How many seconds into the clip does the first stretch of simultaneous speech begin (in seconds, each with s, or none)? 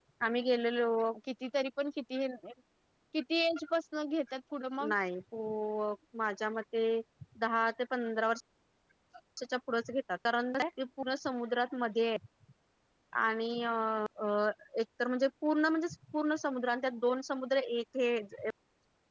none